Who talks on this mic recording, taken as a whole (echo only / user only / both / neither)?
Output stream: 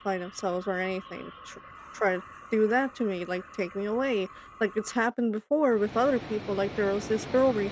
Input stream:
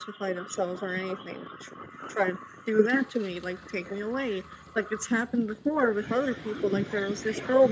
echo only